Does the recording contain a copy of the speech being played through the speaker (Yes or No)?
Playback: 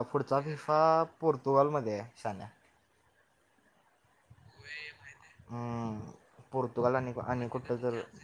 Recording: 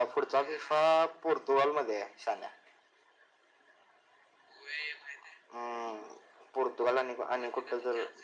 Yes